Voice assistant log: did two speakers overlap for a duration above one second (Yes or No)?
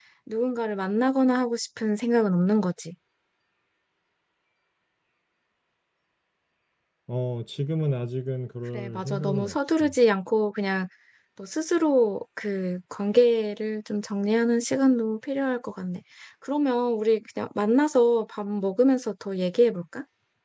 Yes